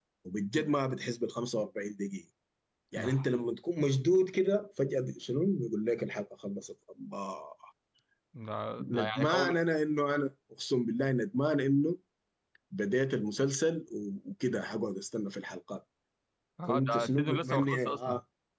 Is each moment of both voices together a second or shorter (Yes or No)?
No